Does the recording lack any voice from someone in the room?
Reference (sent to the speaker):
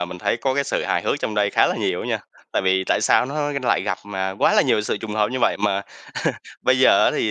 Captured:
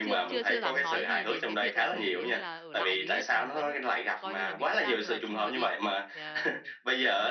No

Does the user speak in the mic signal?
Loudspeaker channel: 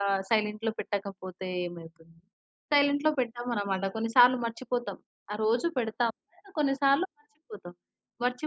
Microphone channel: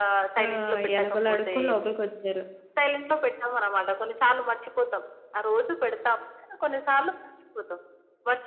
Yes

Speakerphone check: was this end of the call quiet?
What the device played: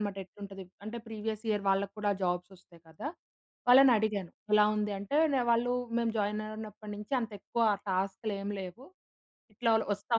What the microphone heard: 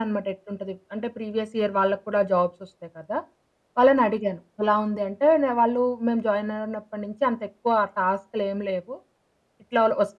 Yes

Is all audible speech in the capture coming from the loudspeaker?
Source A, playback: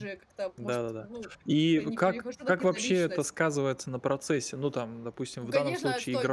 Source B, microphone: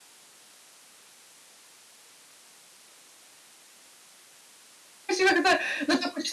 No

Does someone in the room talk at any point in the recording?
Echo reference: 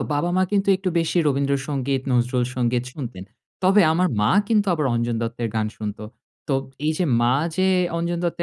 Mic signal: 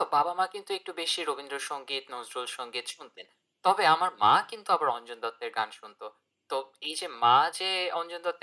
No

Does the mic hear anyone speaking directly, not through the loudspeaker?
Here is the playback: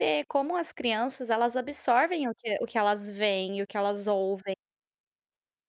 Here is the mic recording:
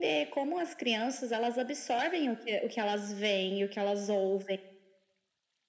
No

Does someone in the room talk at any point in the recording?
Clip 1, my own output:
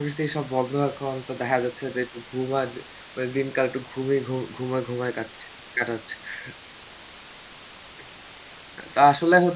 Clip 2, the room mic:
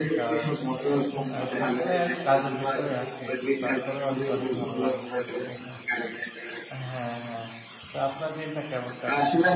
Yes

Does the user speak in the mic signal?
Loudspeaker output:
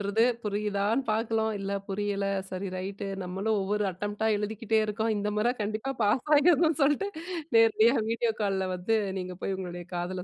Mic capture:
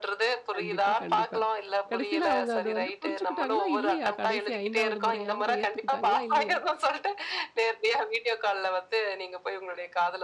Yes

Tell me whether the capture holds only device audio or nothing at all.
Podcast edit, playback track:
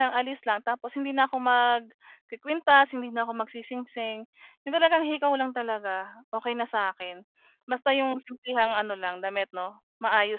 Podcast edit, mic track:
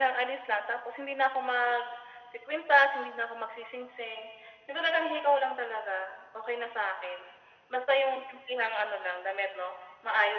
Yes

